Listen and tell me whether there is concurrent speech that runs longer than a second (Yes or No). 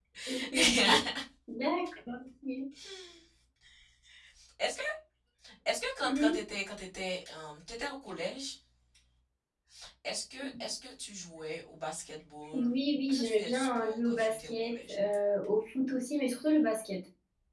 Yes